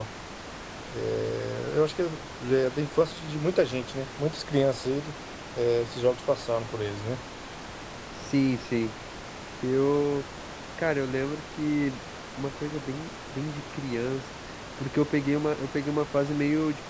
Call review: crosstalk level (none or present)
none